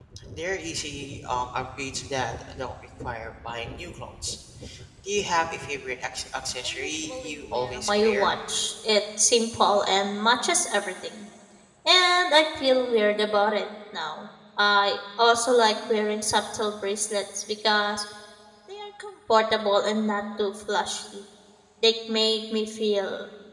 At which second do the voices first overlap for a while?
6.6 s

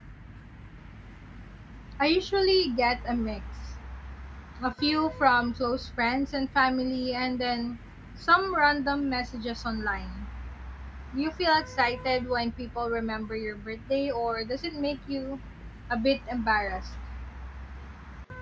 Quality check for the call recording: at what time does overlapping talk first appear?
none

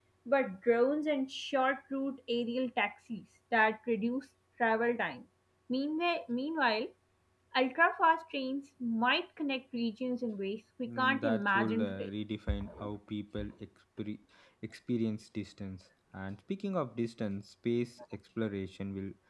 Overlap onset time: 10.9 s

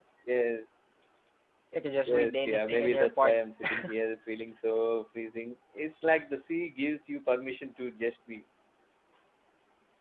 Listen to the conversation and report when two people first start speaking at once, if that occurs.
2.0 s

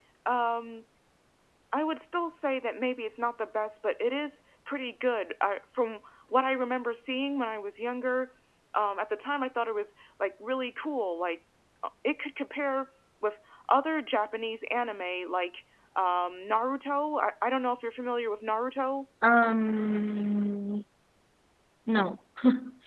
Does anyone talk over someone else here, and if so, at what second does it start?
none

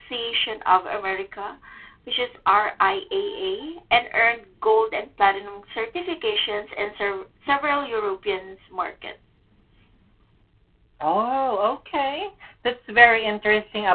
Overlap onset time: none

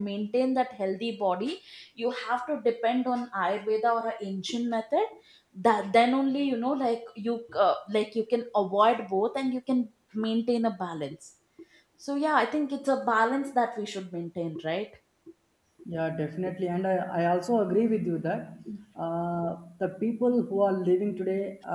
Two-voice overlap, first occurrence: none

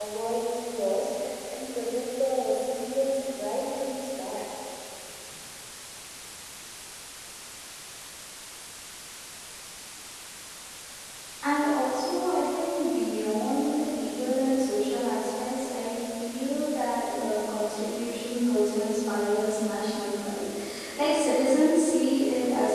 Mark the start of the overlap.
none

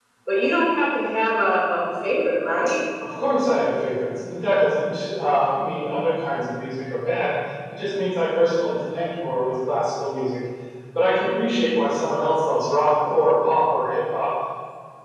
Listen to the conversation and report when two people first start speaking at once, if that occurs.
none

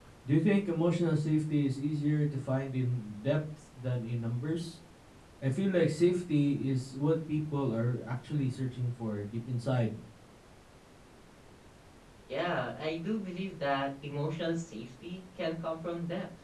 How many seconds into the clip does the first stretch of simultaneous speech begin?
none

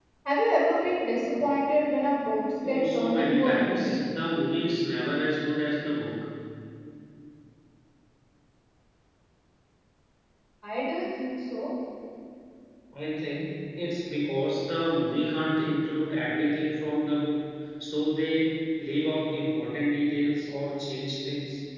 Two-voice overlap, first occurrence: 2.6 s

